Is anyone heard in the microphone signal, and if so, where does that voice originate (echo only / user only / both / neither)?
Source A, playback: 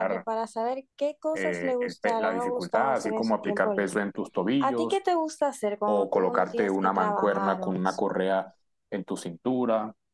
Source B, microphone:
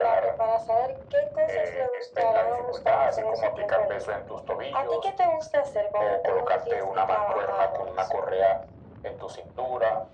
echo only